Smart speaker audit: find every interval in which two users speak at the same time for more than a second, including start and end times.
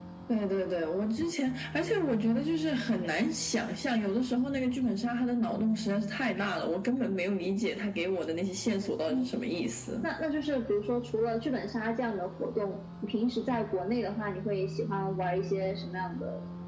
none

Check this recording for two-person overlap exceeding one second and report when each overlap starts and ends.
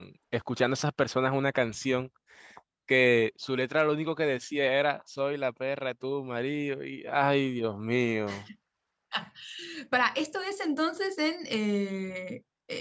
none

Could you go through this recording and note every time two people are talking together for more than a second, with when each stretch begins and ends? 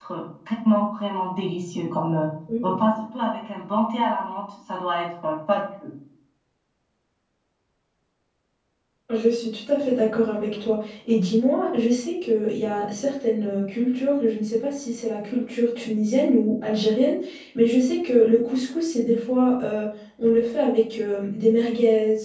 none

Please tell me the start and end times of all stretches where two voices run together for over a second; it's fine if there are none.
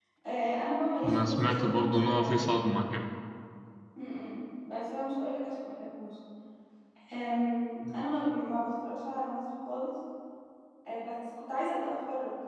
1.0-2.4

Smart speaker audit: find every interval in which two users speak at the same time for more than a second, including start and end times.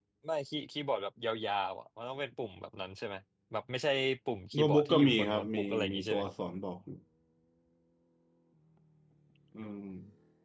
4.5-6.3

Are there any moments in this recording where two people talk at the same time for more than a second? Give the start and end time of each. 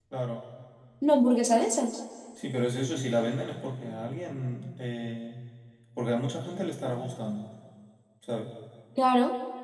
none

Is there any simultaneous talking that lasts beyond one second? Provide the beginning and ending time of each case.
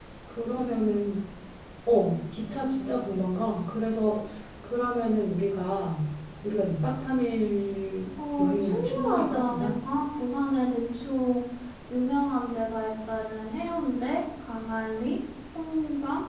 8.4-9.7

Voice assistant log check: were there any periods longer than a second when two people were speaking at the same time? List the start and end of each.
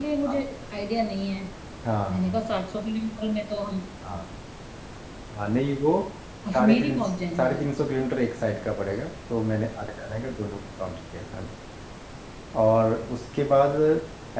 none

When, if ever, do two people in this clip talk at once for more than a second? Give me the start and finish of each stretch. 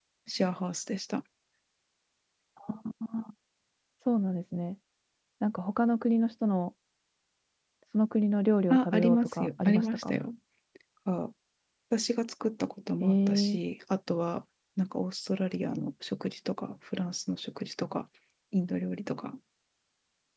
8.7-10.1

